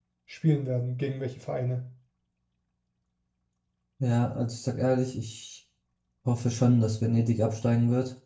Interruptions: none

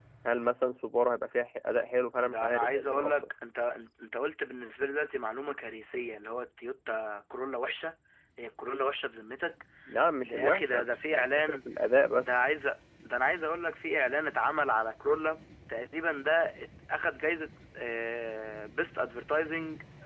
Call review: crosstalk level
present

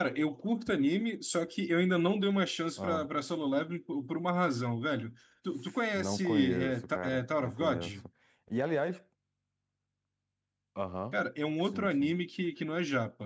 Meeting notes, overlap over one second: present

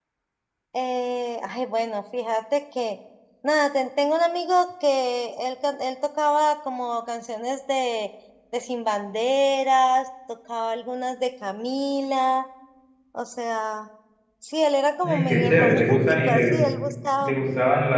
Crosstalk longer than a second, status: present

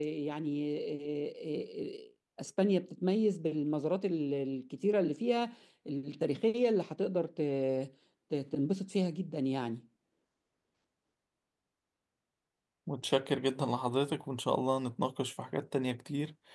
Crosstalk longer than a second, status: none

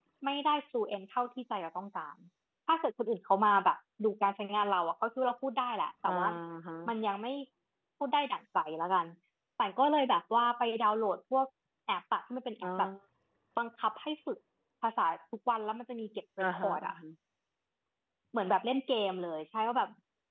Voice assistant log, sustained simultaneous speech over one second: none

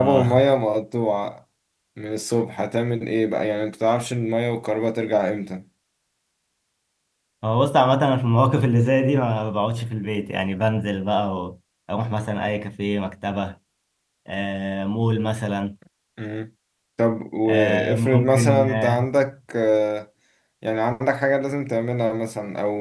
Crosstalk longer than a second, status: present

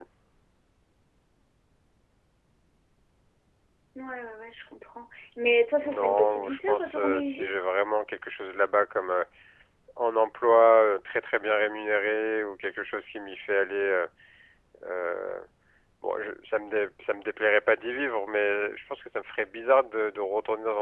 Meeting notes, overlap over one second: present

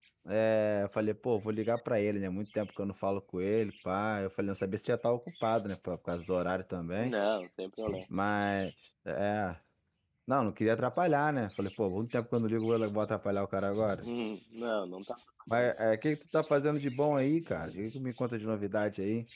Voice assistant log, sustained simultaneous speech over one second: none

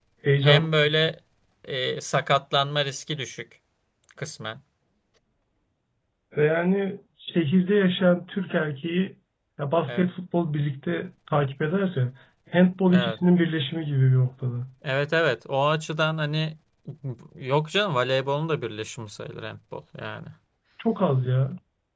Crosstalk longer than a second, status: none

